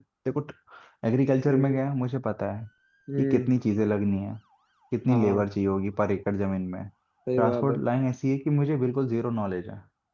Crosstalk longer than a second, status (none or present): none